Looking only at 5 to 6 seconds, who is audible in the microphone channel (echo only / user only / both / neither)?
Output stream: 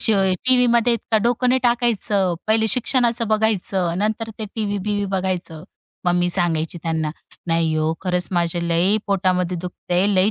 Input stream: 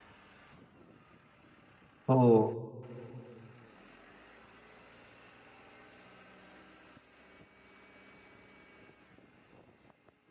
neither